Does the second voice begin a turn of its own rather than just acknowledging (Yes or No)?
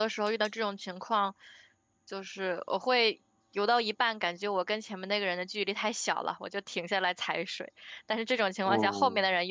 No